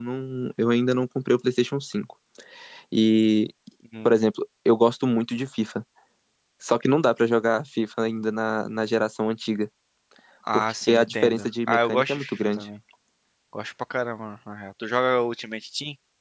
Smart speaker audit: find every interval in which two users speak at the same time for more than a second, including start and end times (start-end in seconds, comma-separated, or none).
10.5-12.7